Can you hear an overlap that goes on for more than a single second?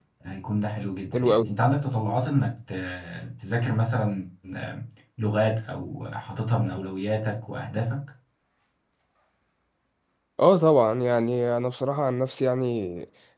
No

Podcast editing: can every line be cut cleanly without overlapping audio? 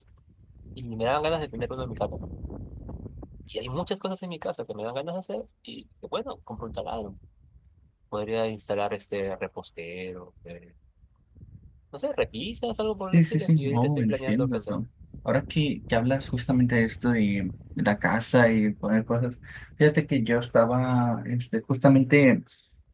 No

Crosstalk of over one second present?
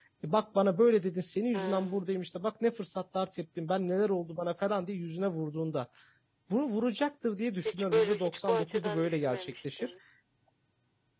Yes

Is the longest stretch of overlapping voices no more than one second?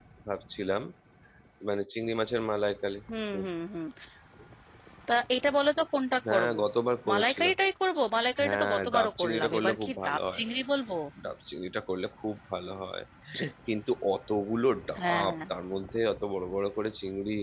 No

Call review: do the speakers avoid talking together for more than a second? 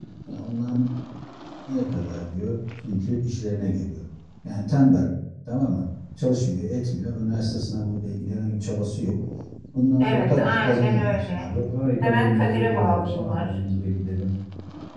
No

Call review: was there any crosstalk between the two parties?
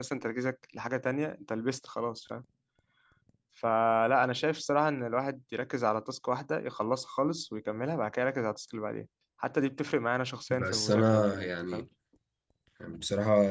Yes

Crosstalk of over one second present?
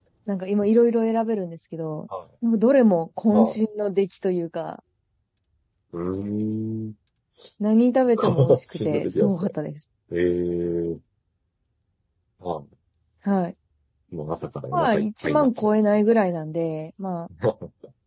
Yes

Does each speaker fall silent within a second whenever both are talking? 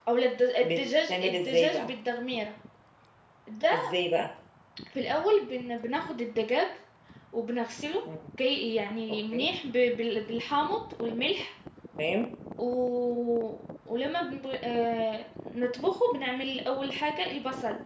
No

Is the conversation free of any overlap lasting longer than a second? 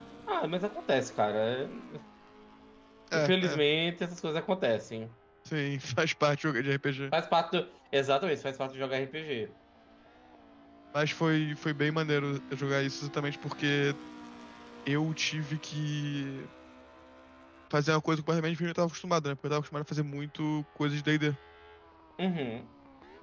Yes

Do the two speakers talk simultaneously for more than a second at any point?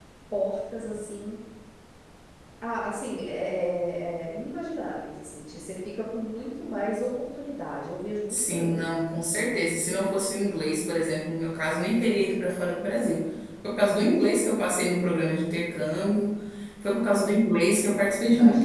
No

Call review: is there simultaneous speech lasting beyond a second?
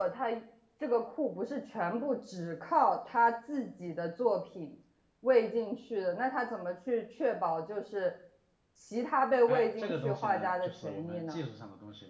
Yes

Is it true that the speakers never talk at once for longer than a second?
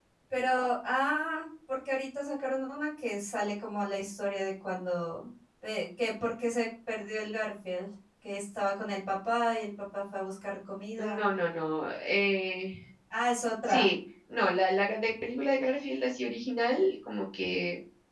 Yes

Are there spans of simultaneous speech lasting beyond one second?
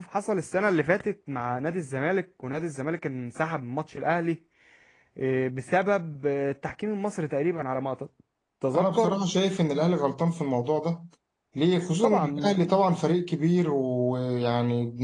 No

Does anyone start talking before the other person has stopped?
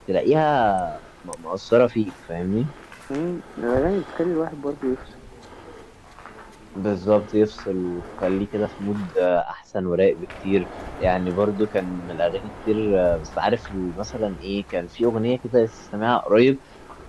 No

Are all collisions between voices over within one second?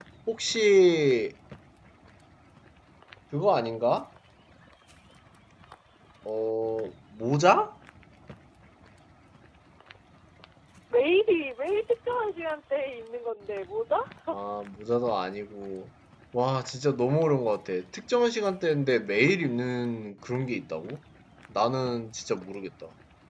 Yes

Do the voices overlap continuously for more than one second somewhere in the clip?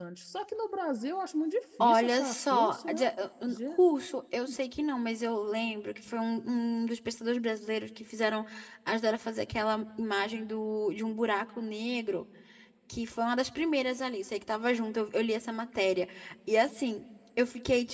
Yes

